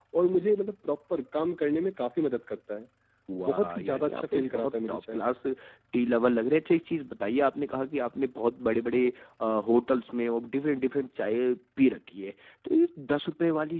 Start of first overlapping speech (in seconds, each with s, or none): 3.5 s